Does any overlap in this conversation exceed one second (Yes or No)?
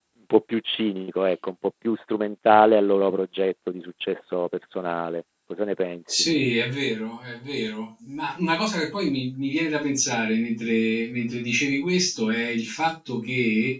No